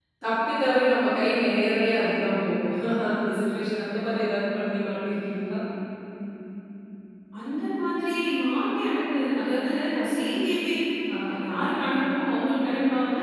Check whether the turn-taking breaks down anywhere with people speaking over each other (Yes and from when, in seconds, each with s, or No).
No